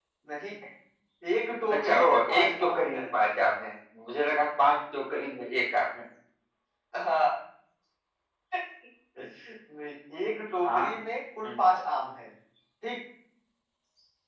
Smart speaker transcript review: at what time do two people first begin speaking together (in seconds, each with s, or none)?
1.7 s